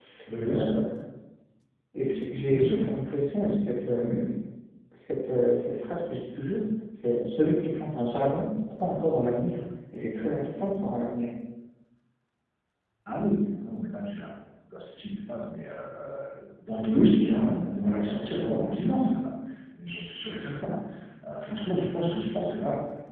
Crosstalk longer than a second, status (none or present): none